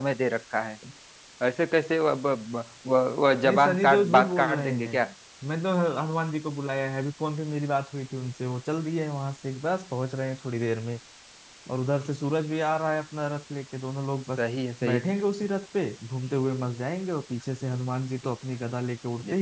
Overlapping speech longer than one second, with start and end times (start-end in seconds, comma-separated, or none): 3.5-5.0